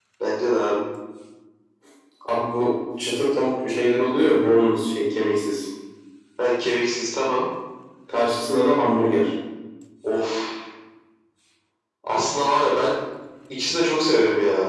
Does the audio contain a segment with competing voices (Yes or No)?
No